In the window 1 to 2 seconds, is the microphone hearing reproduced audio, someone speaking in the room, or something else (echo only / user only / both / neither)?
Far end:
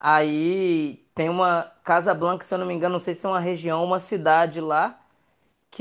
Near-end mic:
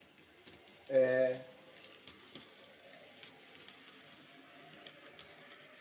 user only